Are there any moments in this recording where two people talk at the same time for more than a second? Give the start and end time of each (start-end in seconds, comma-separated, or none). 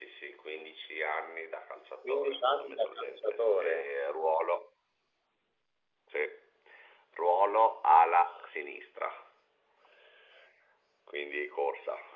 2.0-3.9